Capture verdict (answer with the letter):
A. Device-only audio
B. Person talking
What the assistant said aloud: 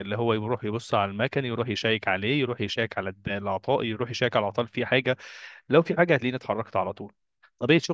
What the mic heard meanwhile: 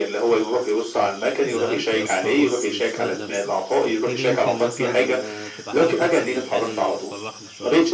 B